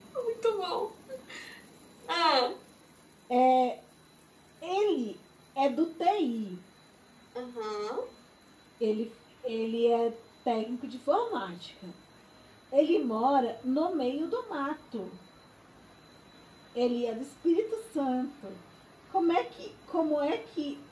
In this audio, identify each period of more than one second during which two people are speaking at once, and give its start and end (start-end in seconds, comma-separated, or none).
none